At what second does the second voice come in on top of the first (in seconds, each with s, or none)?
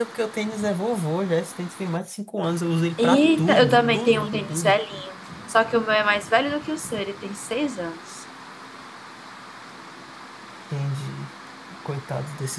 3.0 s